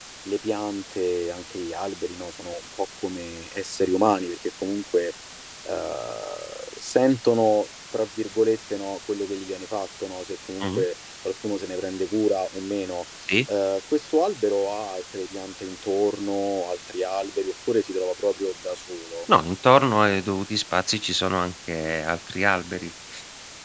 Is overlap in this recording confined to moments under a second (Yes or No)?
Yes